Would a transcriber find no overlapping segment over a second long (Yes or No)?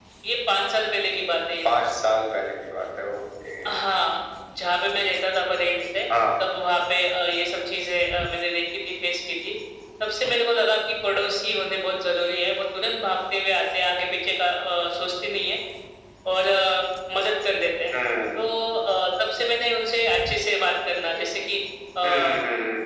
Yes